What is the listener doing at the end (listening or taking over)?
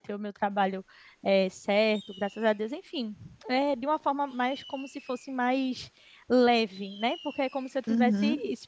listening